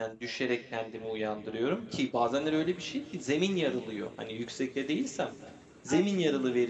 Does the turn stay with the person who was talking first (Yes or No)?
Yes